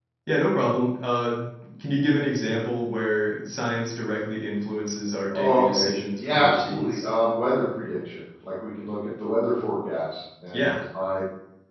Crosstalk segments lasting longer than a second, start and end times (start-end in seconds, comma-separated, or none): 5.3-7.0